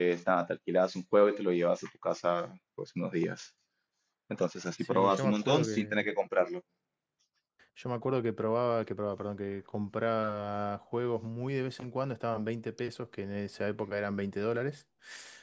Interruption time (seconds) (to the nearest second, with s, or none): 5 s